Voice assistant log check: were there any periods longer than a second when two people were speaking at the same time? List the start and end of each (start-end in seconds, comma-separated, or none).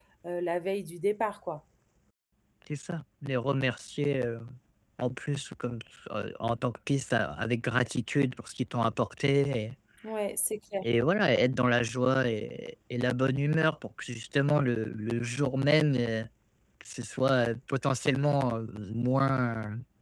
none